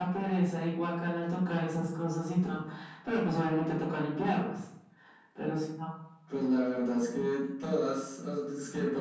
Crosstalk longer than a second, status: none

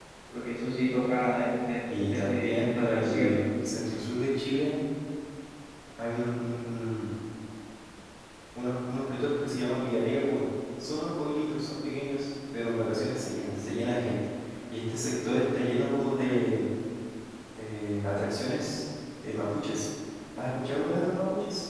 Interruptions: present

